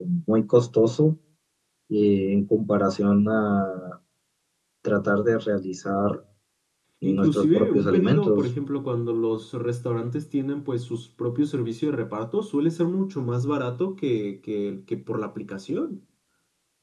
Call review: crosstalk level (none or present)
present